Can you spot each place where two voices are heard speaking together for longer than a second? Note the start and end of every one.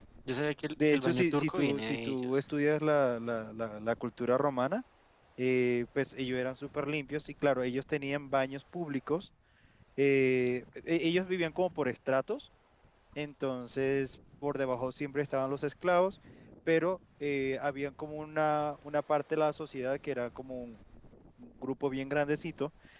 0.8-2.4

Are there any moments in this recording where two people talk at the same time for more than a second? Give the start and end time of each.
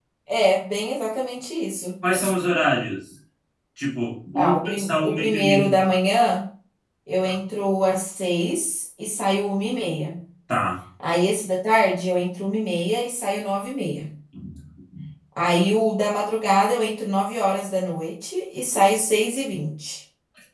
4.3-5.8

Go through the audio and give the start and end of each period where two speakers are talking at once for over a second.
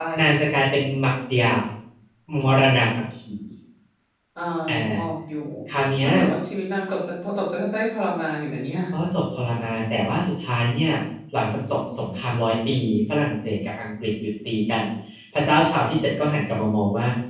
none

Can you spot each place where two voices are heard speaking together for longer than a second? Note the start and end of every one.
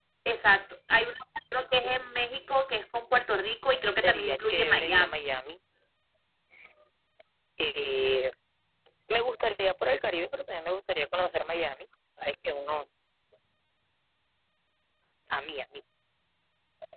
4.0-5.2

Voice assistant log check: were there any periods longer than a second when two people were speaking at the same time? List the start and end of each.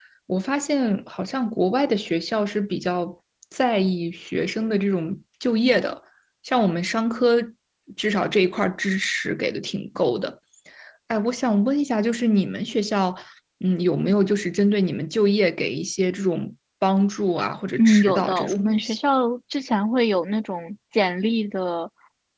17.8-19.0

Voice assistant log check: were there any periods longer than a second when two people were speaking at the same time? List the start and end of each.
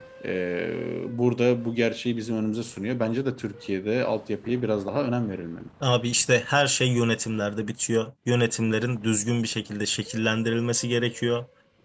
none

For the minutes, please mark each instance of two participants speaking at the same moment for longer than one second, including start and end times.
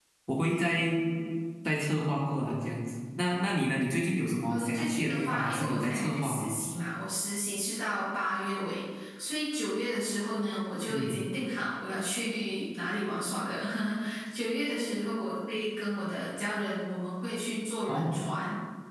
4.5-6.5

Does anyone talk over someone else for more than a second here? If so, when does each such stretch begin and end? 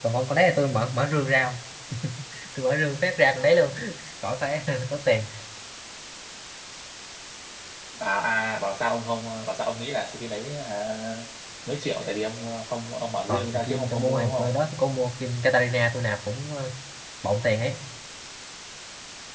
13.3-14.5

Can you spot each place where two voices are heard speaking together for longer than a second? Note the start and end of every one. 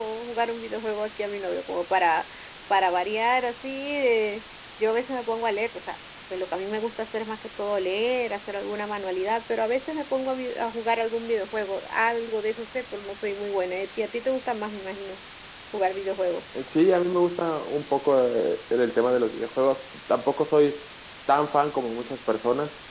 none

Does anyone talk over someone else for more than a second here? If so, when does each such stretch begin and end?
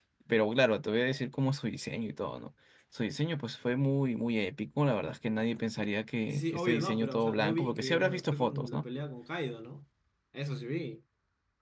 6.3-8.8

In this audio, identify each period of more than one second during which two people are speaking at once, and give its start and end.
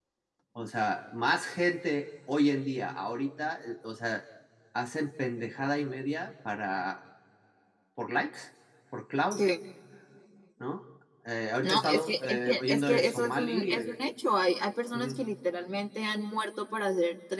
11.6-14.0

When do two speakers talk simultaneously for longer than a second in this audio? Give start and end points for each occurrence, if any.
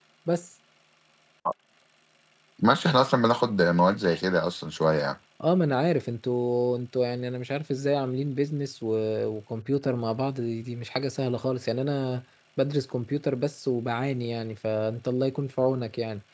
none

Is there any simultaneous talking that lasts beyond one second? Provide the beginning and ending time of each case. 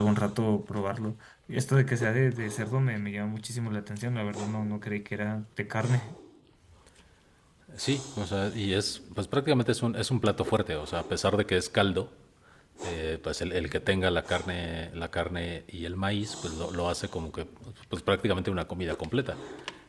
none

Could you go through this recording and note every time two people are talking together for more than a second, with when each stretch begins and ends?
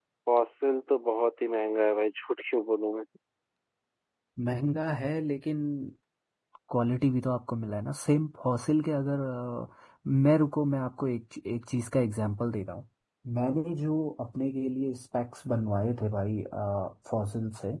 none

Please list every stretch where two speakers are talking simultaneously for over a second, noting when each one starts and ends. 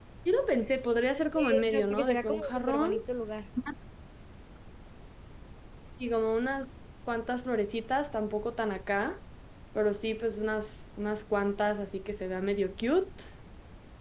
1.3-2.9

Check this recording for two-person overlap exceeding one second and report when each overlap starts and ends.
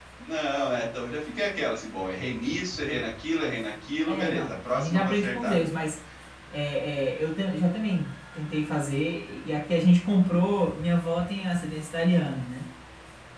4.1-5.6

